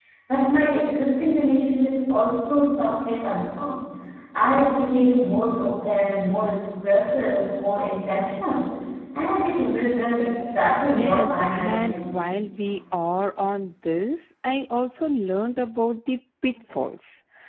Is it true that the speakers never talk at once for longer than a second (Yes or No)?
No